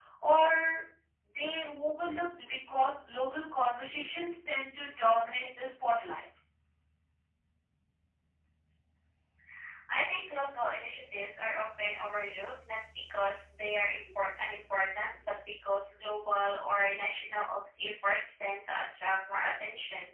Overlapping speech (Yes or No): No